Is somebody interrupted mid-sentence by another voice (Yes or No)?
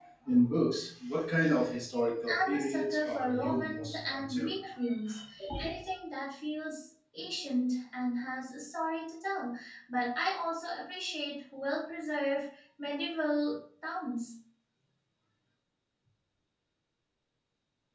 Yes